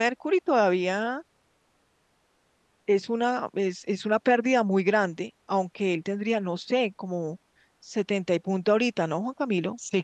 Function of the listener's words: taking over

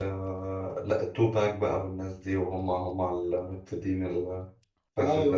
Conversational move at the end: taking over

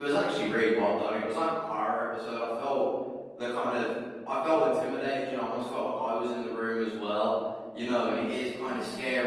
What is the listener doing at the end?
listening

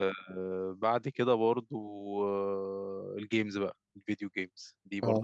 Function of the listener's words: listening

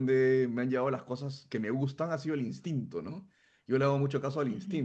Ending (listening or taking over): listening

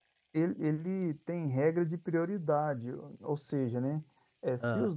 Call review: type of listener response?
listening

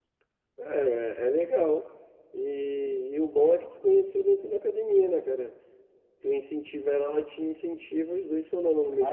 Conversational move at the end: taking over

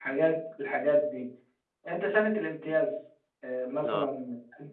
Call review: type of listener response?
listening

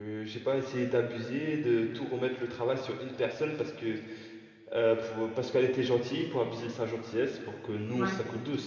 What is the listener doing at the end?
listening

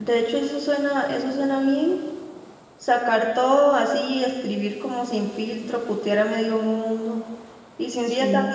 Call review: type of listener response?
listening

